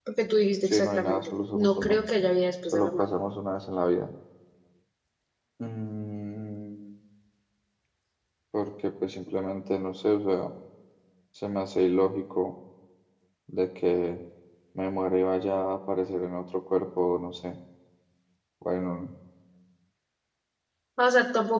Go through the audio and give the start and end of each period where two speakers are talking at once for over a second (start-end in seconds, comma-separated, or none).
0.7-2.0